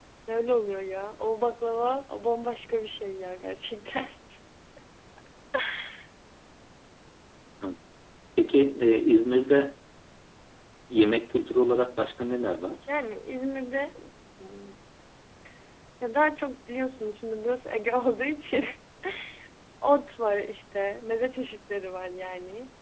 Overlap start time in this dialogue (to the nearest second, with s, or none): none